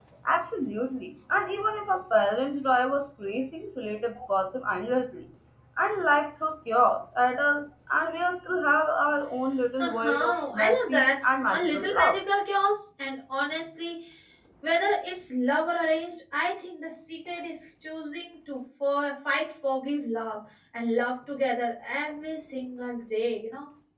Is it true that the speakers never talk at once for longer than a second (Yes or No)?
No